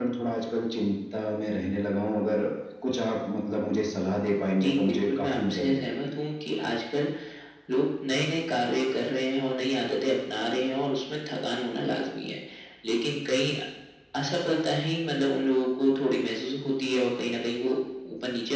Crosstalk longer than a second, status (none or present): present